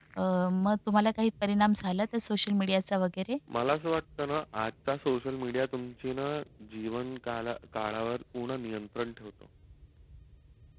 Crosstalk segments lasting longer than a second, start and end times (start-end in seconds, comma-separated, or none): none